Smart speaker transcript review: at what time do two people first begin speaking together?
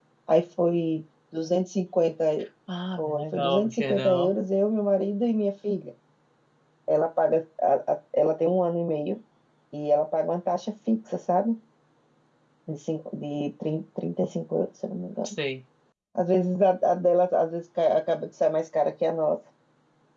3.0 s

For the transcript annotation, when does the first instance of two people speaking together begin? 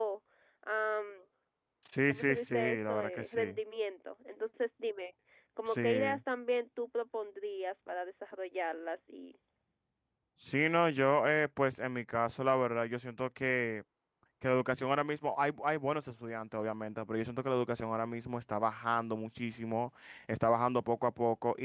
2.1 s

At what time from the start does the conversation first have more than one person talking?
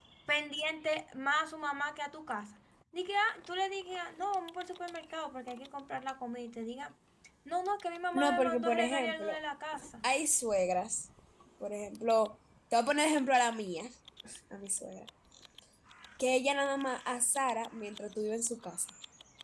8.1 s

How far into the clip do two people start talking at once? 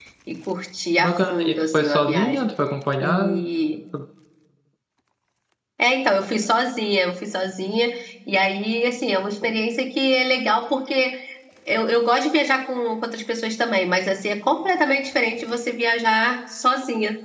1.0 s

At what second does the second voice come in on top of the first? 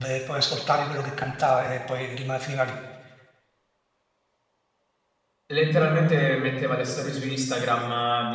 none

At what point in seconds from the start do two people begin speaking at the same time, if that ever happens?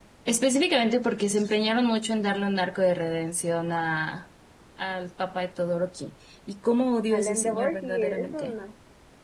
7.1 s

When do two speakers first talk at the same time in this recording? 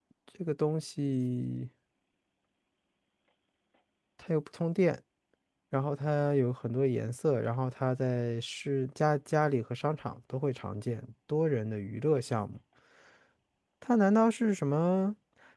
none

